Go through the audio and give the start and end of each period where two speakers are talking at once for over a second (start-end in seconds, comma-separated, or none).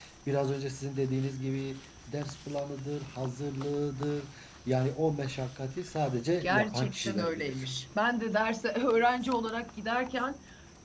6.4-7.7